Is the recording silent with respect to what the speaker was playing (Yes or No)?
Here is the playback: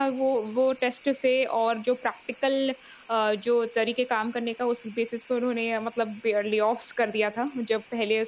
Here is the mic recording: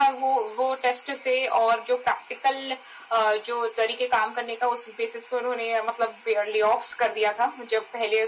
No